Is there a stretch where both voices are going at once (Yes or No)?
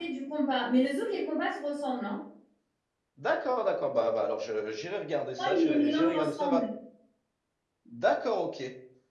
Yes